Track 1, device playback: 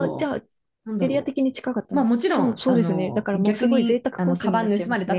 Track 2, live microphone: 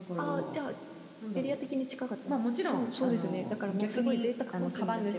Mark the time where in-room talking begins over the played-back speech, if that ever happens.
none

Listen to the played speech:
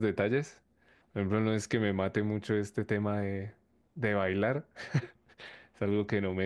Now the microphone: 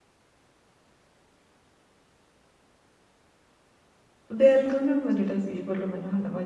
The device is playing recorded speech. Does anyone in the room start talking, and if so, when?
4.3 s

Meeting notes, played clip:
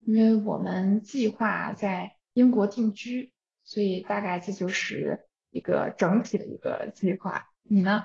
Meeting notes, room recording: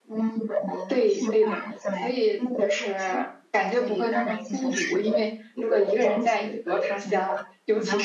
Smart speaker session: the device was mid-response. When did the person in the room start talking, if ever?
0.8 s

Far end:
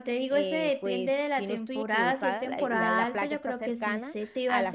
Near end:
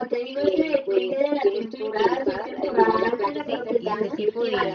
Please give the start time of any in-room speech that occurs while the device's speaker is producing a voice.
3.3 s

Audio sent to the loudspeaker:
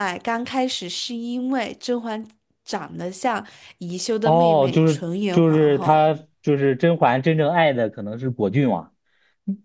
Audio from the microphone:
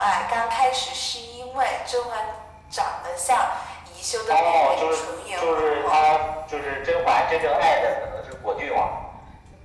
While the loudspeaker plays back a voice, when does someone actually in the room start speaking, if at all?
none

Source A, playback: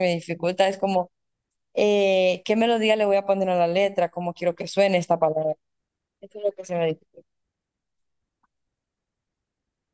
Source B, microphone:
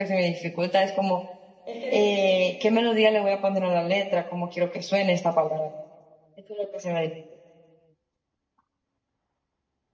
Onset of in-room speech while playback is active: 1.6 s

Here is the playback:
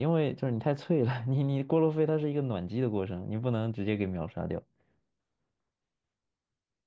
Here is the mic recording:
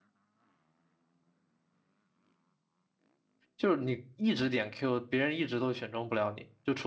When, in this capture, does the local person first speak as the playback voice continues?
3.5 s

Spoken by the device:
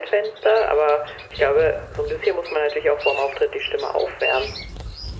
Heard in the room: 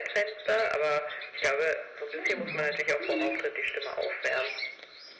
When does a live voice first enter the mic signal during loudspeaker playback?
2.1 s

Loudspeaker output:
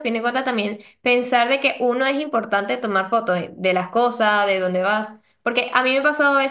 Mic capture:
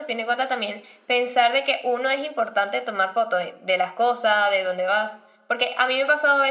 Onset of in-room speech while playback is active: none

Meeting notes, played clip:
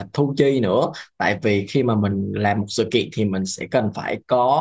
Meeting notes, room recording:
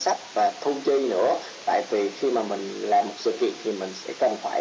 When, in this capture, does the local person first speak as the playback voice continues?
none

